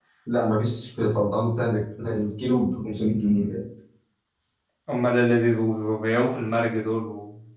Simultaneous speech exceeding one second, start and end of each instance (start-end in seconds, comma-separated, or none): none